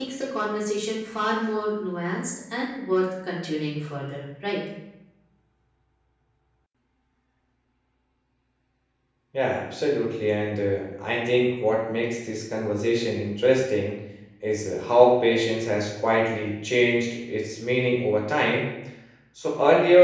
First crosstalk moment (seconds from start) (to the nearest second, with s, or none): none